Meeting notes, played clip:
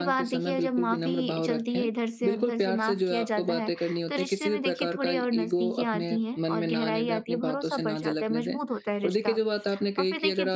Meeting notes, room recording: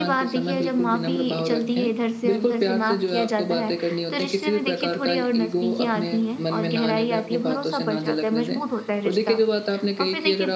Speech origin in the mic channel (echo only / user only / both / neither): echo only